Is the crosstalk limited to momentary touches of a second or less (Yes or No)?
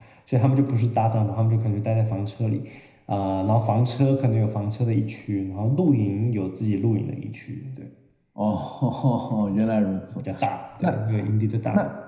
Yes